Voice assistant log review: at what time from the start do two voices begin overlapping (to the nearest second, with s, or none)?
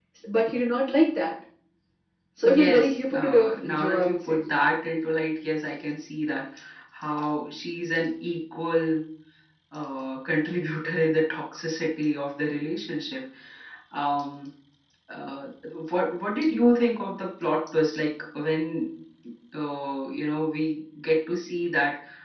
2 s